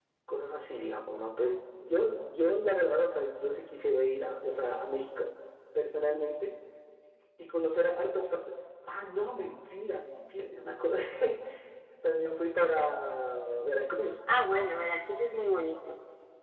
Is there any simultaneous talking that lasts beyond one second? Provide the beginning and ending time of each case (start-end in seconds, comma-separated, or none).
none